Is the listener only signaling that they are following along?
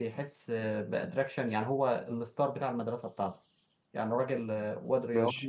Yes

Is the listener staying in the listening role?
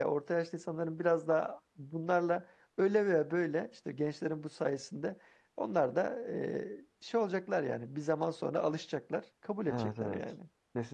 No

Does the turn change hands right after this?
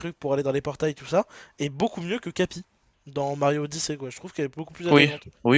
Yes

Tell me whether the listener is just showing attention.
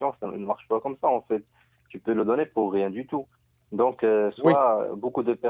Yes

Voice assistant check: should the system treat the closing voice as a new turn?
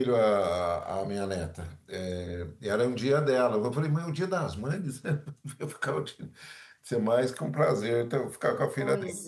No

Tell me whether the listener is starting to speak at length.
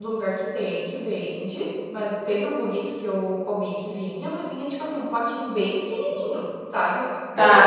Yes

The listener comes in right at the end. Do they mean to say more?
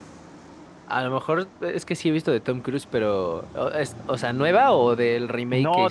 Yes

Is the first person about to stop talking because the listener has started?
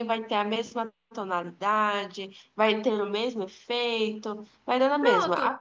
No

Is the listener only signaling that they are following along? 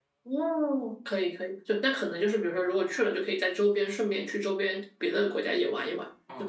No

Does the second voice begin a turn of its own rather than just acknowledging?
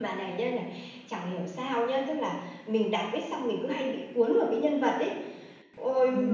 No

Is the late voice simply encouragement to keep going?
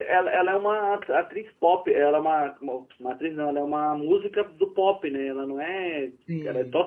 Yes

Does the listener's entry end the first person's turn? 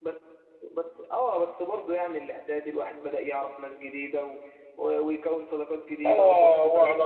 Yes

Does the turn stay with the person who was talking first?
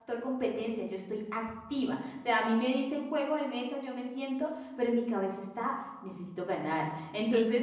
Yes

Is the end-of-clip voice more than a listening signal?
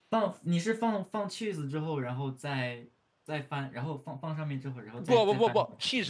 Yes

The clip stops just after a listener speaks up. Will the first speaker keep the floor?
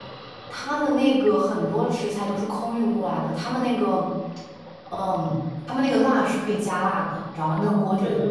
No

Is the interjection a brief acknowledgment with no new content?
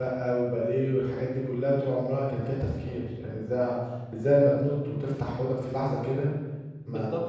No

